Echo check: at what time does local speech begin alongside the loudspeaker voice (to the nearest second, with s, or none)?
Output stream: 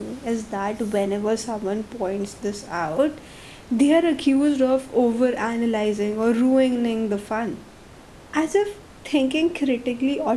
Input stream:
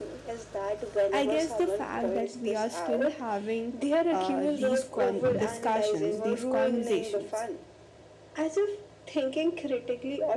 1 s